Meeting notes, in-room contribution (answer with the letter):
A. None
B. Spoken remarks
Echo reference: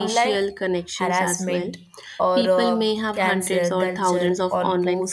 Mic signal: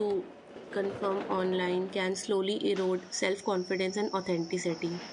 B